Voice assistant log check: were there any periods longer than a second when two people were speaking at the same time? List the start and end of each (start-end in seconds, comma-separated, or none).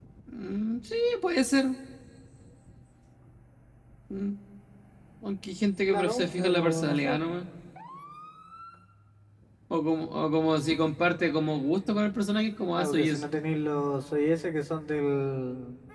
5.9-7.2